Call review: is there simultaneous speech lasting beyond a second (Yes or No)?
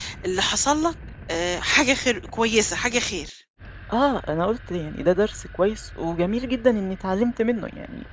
No